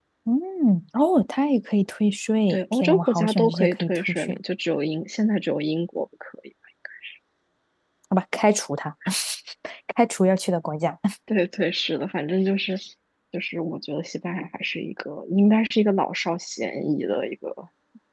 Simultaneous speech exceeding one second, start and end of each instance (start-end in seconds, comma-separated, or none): 2.5-4.4